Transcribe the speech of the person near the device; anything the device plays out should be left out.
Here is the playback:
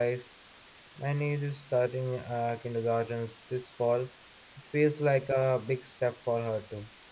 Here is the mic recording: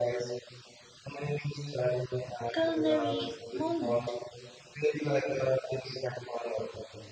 culinary moment.

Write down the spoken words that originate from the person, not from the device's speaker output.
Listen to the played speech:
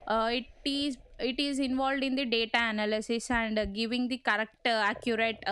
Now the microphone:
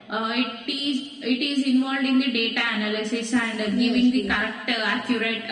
Yes, yes.

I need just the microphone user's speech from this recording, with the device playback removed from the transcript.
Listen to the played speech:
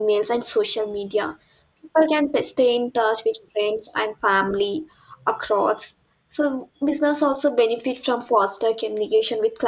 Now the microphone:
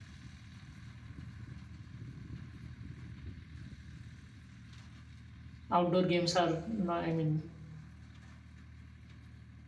outdoor games are no i mean

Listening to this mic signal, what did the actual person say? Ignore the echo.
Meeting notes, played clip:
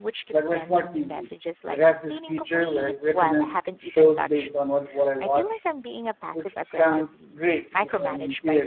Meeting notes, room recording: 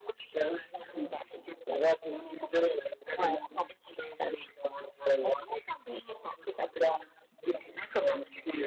none

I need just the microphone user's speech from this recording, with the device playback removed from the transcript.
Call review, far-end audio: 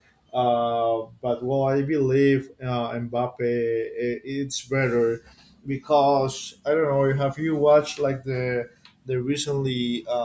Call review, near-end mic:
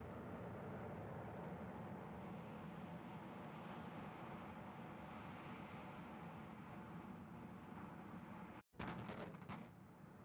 none

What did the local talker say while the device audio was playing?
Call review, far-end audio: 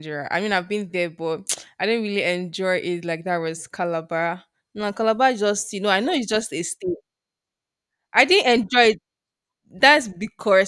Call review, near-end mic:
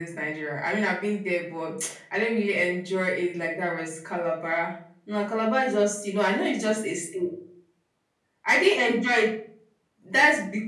none

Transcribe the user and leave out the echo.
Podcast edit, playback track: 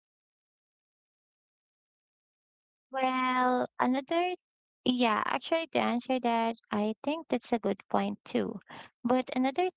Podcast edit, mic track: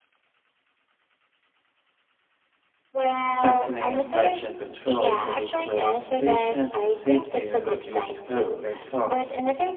Strengthening infection control could improve patient safety and reduce healthcare costs.

